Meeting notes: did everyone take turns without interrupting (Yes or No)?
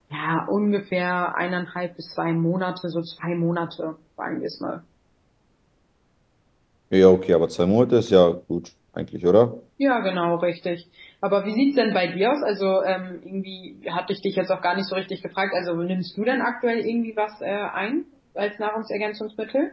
Yes